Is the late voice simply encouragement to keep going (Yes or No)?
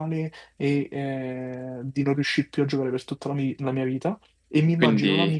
Yes